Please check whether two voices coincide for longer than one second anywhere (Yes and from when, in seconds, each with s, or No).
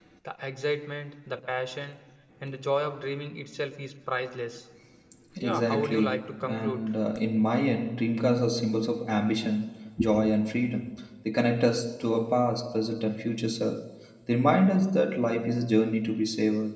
Yes, from 5.4 s